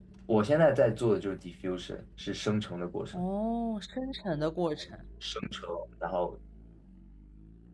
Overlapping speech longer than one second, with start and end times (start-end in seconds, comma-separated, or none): none